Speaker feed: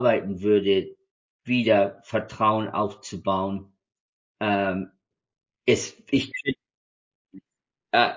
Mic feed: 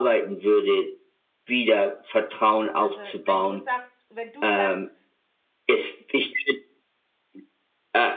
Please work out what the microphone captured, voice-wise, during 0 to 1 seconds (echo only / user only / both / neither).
echo only